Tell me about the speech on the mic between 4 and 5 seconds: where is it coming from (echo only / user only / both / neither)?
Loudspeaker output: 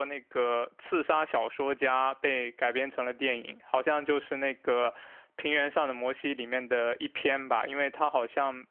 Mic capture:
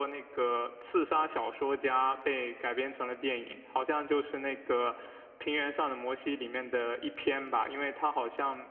echo only